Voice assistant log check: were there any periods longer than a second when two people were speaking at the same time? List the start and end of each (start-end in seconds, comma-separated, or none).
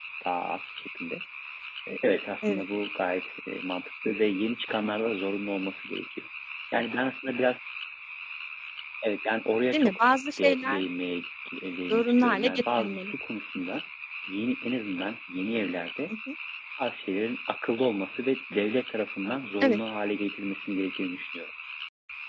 11.9-13.1